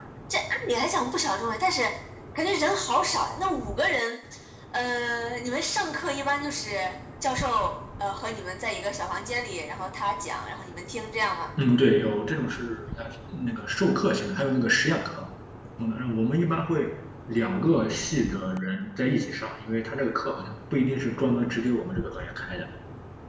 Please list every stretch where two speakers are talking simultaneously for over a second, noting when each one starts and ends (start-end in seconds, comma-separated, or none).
none